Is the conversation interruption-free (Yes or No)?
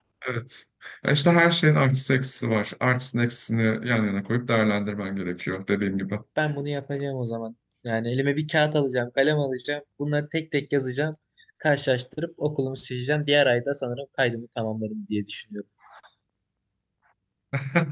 Yes